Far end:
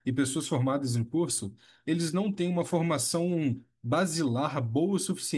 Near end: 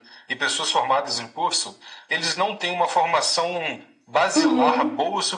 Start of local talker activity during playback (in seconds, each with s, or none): 4.3 s